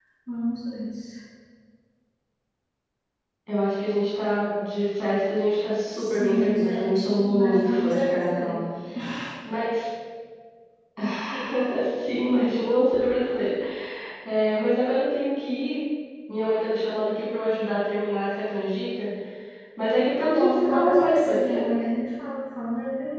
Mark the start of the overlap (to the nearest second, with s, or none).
6 s